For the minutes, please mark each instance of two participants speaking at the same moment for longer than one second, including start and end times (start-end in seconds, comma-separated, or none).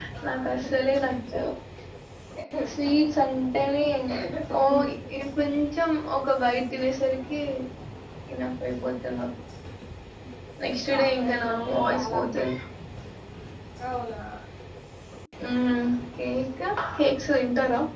10.9-12.2